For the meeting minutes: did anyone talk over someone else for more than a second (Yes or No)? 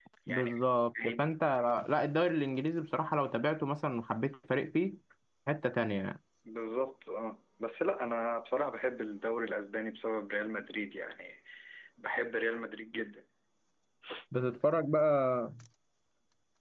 No